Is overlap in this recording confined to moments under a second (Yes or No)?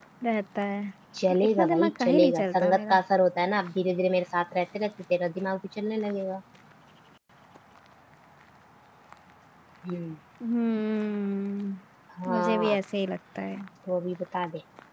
No